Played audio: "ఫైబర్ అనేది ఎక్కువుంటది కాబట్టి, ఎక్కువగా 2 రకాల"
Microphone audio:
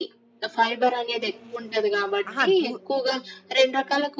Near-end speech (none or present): present